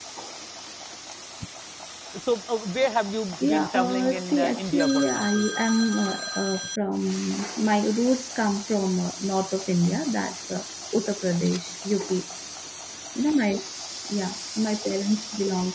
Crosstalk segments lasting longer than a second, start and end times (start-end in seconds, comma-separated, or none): 3.4-5.4